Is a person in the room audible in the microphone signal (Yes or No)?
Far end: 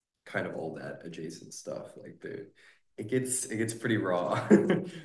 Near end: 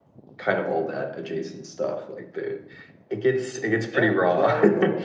Yes